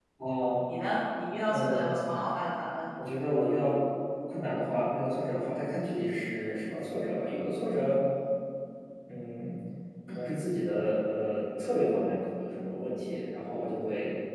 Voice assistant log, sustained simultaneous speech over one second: none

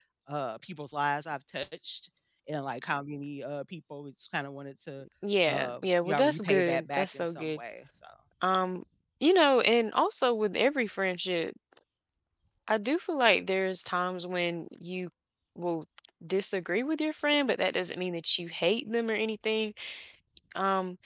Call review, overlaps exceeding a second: present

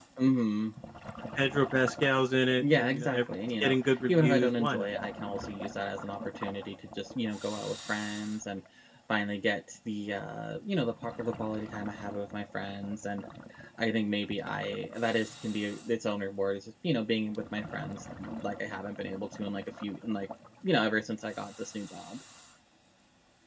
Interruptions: present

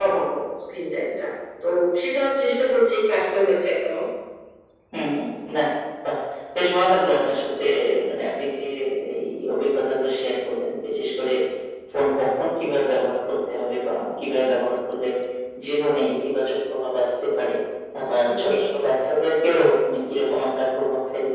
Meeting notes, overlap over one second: none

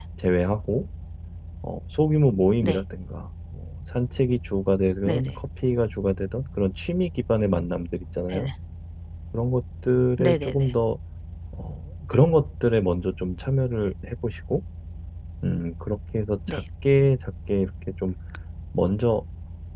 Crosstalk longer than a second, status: none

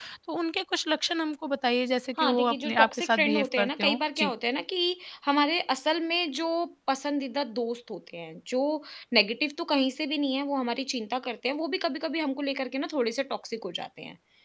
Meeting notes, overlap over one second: present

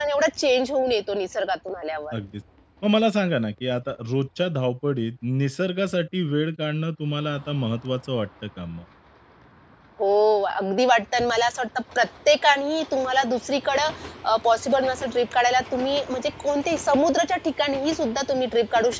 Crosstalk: none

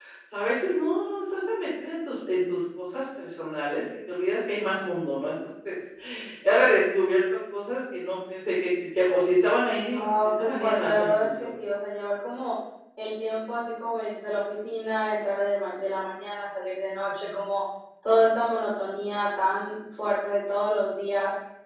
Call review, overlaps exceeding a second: present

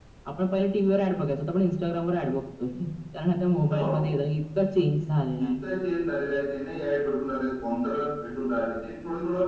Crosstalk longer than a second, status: none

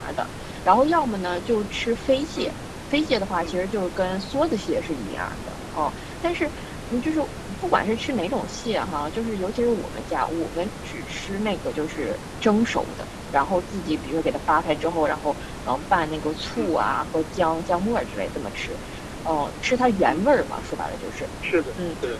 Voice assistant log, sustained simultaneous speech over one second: none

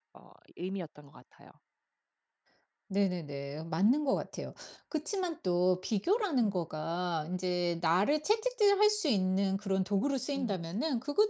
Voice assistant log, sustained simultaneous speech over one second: none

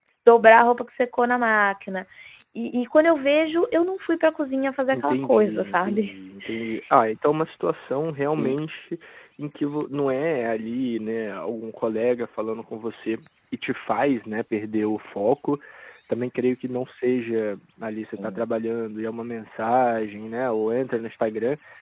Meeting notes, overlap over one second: present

